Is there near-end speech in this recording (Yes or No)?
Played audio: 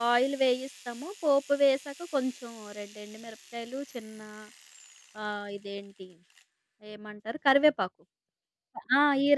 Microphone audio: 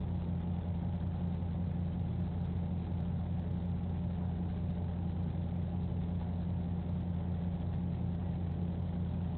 No